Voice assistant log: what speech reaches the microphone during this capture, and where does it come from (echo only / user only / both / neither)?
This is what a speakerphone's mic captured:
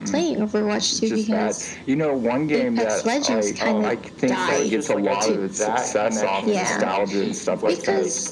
both